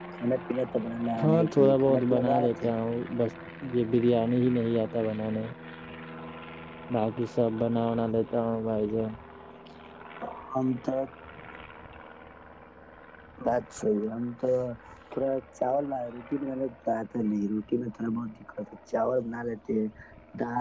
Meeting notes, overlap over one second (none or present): present